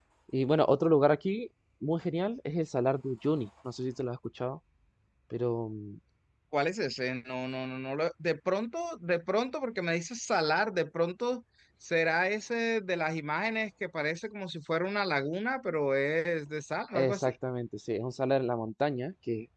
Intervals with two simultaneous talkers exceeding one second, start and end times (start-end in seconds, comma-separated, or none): none